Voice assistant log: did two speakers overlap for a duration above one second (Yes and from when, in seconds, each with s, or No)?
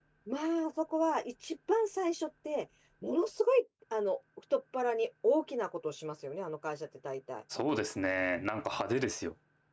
No